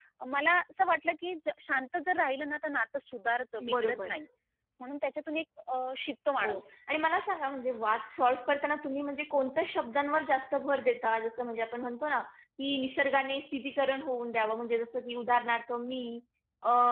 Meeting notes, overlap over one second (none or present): none